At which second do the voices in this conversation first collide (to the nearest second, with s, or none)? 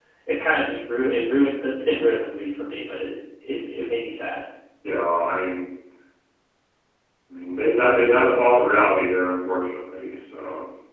none